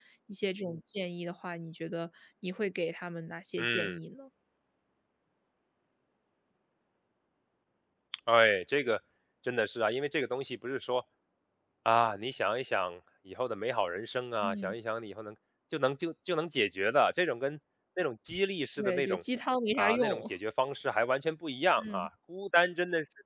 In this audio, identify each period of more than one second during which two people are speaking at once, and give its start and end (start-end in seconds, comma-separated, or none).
none